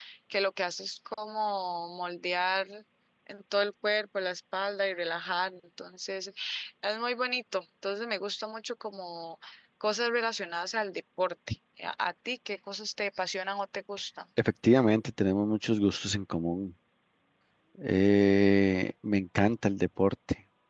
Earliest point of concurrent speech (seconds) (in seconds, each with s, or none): none